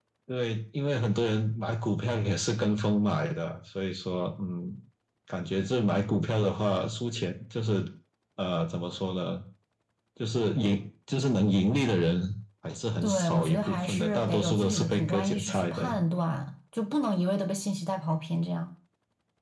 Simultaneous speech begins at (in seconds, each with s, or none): 13.0 s